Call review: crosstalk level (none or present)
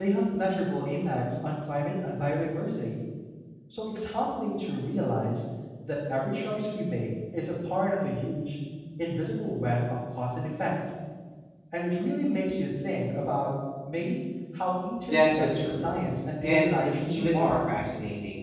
present